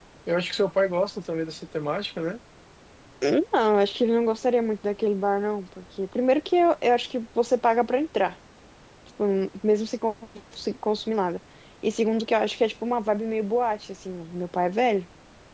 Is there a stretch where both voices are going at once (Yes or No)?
No